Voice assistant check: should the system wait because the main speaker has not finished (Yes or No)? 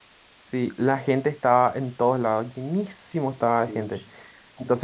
Yes